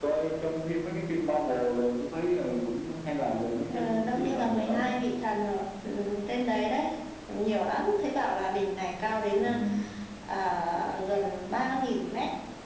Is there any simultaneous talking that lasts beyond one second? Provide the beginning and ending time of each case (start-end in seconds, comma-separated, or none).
3.7-4.9